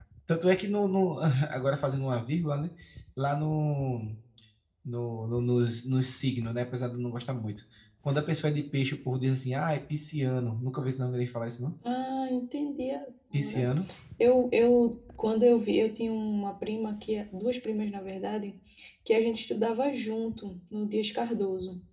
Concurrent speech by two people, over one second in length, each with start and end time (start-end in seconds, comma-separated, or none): none